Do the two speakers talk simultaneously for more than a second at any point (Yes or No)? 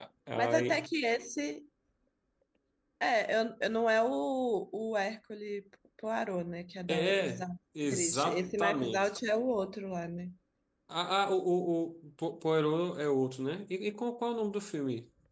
Yes